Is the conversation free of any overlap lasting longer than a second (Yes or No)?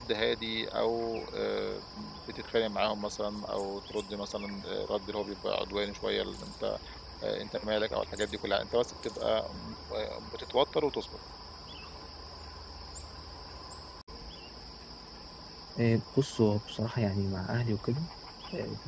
Yes